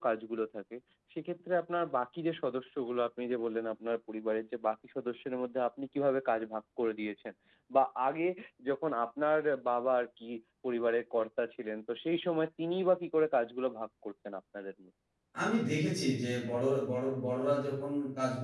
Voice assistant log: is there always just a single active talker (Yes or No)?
Yes